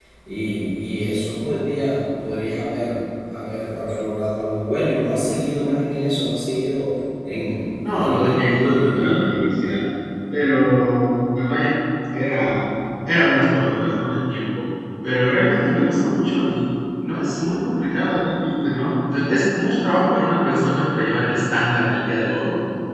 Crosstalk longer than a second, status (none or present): present